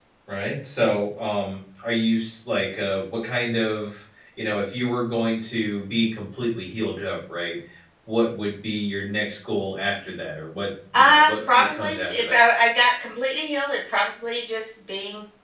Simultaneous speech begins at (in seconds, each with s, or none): 10.9 s